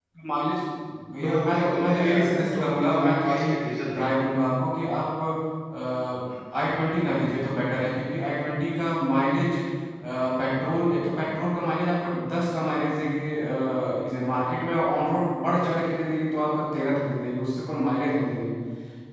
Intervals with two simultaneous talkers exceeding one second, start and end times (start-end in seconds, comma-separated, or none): 1.2-3.6